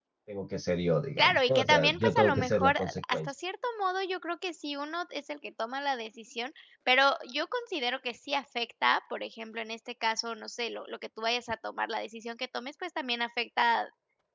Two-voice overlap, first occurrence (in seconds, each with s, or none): 1.2 s